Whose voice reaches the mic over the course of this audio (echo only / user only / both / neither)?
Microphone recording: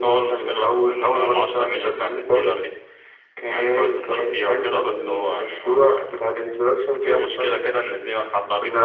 echo only